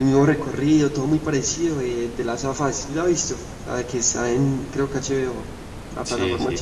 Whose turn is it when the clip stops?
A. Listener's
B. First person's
A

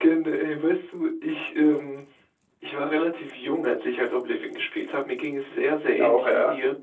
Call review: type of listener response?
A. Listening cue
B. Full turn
A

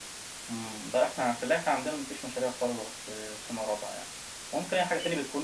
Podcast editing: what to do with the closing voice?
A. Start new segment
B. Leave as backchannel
B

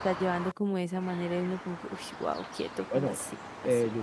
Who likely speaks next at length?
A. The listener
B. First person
A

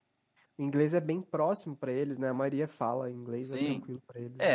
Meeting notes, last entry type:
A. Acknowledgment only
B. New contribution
B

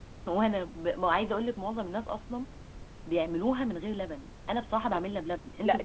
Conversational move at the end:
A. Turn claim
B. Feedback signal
A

